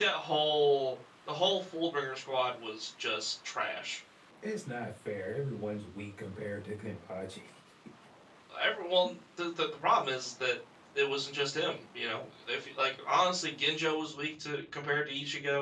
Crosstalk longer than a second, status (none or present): none